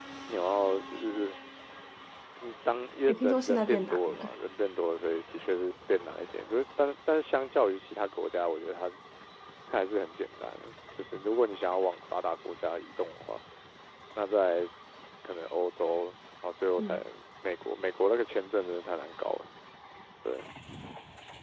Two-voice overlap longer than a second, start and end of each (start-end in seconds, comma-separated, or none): 3.1-4.3